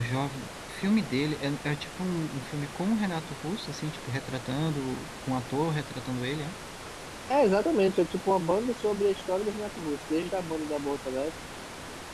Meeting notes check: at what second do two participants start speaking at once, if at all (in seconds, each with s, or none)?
none